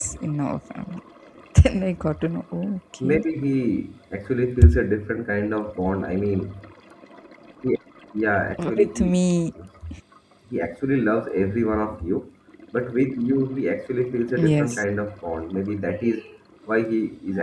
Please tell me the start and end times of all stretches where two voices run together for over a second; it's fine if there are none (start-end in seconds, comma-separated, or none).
none